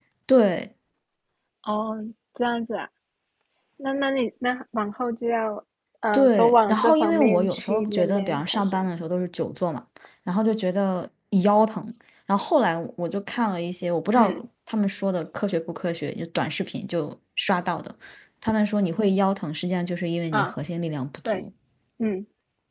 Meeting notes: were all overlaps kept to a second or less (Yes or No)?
No